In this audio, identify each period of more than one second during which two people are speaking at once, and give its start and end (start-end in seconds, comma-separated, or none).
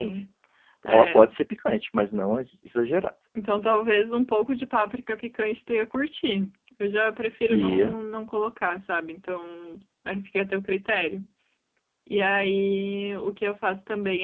none